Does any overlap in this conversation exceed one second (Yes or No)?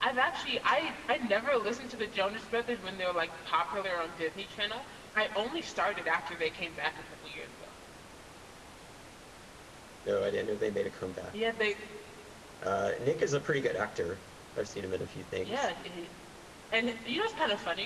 No